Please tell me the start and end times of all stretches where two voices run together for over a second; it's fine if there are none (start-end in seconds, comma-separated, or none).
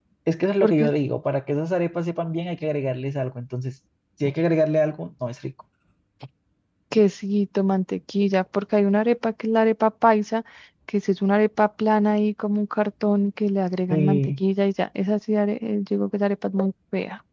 none